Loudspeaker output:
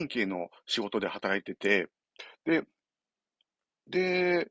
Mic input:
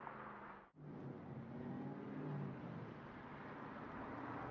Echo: none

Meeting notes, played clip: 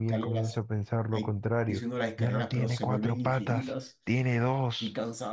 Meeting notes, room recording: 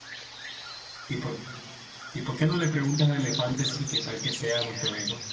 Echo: none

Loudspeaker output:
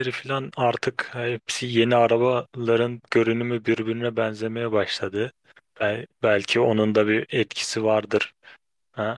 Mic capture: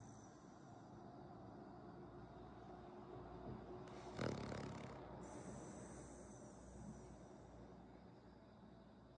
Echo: none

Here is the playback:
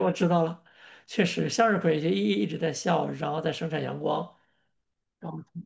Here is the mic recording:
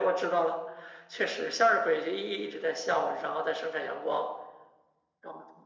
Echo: present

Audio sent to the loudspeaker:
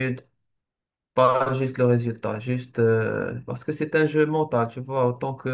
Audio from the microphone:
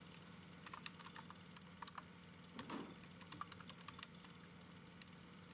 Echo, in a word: none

